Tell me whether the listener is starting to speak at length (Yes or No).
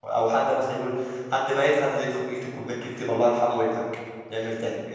Yes